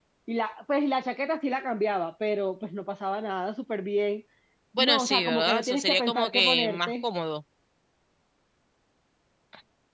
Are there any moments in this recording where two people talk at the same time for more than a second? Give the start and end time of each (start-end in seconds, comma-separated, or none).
4.8-6.9